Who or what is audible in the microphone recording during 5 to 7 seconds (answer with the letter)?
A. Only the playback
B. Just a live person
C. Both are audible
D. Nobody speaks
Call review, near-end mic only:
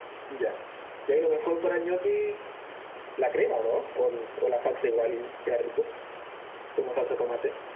A